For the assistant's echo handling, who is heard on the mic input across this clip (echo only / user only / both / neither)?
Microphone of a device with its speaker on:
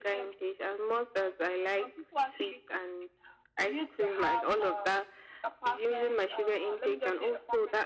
echo only